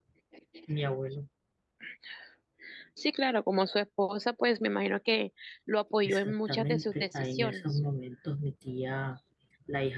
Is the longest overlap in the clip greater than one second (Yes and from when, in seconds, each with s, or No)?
Yes, from 6.0 s